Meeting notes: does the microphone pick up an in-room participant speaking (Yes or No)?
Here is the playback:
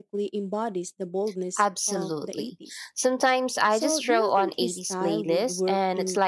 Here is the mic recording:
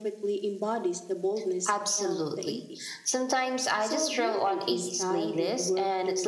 No